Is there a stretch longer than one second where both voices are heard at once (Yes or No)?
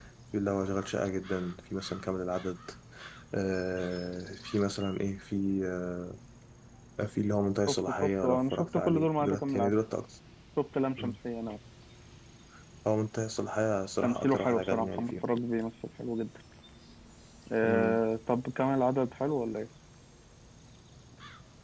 Yes